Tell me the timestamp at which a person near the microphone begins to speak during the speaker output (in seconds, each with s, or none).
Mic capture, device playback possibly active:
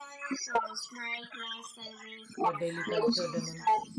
2.4 s